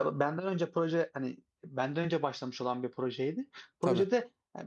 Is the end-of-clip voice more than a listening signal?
No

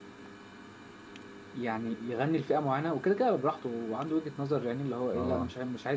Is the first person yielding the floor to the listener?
No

